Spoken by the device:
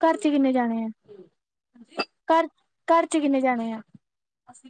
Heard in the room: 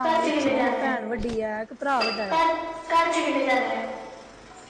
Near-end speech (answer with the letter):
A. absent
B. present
B